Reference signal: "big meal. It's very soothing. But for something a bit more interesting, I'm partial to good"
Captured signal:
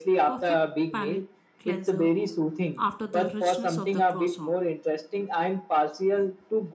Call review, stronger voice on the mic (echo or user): echo